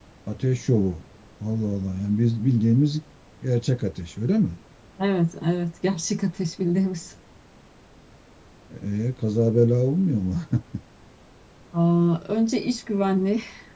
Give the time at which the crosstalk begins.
none

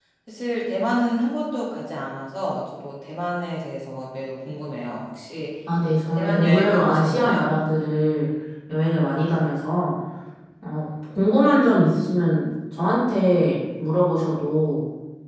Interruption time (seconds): 6 s

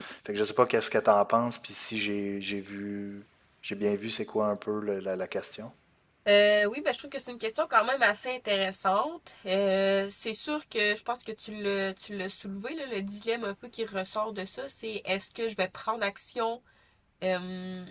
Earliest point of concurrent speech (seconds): none

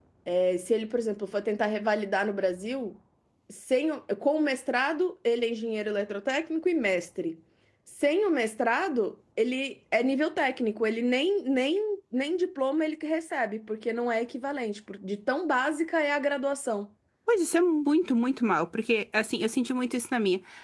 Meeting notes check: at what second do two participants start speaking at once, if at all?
none

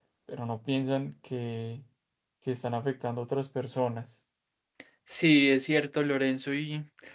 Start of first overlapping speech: none

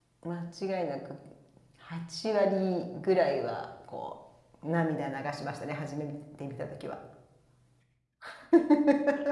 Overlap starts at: none

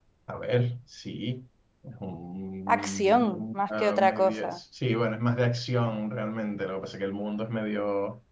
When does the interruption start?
3 s

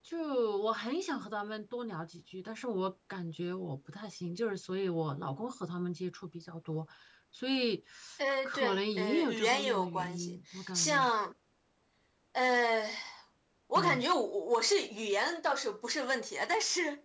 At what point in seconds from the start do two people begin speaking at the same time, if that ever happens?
8 s

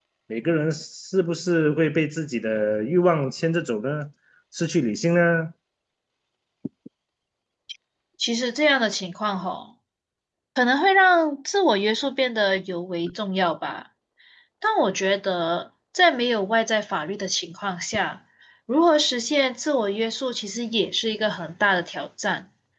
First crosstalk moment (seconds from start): none

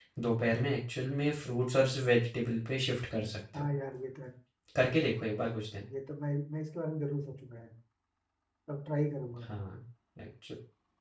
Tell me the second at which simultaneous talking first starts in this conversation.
none

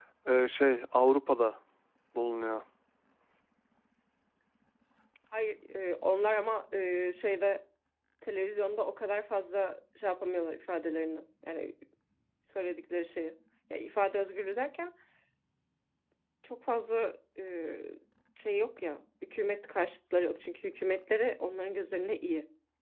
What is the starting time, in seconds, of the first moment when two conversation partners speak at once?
none

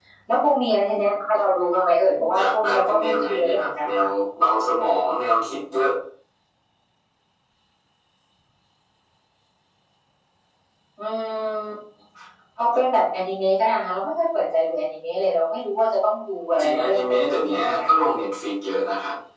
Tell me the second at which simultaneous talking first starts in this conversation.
2 s

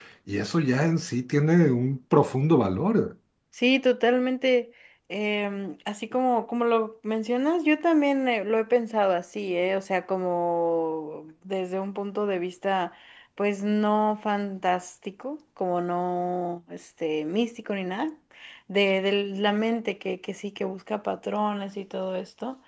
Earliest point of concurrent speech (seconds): none

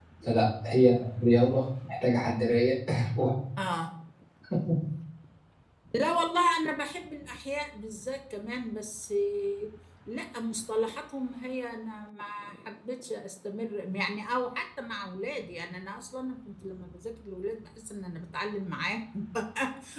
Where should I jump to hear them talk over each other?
none

